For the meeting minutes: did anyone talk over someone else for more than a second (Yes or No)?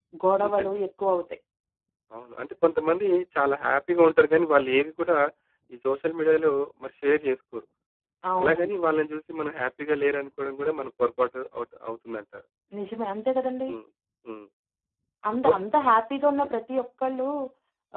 No